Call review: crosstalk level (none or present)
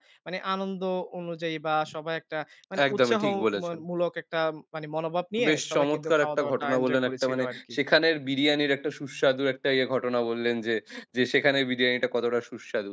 present